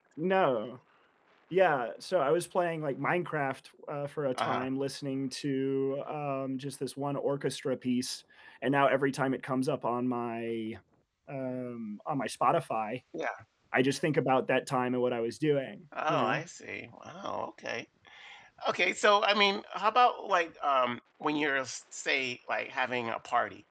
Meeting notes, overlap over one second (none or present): none